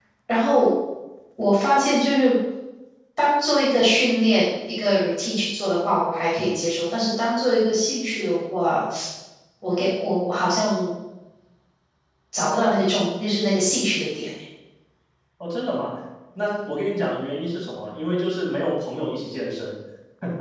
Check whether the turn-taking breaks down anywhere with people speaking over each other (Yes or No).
No